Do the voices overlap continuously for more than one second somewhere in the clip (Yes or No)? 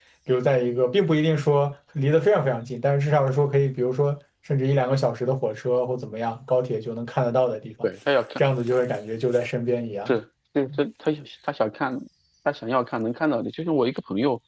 No